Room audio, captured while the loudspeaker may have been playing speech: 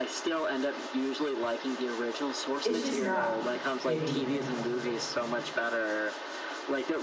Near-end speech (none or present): present